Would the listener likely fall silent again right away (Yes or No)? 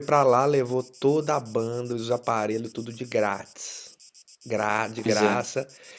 Yes